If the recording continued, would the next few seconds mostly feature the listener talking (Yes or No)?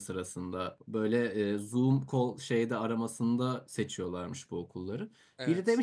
No